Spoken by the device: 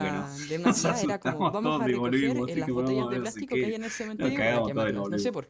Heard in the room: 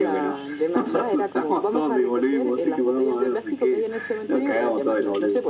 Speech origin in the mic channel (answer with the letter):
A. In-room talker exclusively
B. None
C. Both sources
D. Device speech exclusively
D